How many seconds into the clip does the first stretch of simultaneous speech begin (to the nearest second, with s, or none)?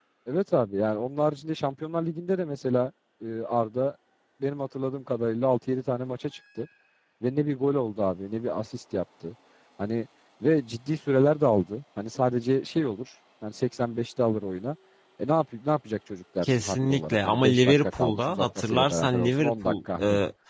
16 s